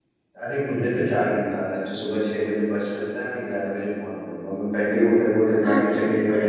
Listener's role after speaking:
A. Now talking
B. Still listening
A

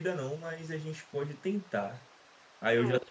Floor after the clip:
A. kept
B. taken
A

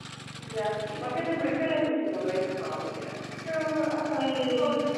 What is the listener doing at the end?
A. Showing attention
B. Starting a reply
B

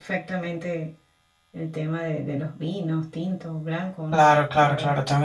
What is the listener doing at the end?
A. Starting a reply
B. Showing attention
A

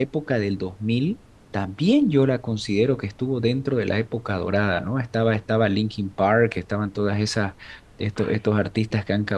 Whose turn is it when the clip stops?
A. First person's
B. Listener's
A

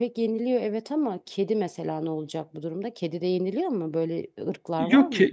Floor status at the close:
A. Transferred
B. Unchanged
A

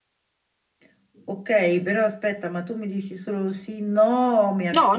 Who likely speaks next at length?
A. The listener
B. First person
A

